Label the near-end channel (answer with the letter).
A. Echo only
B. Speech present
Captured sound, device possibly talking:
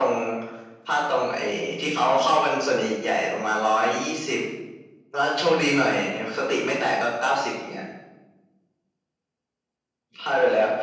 A